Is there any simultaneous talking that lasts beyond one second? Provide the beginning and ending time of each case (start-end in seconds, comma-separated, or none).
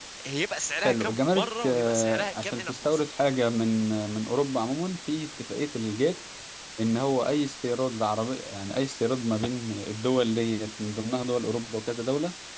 0.8-3.0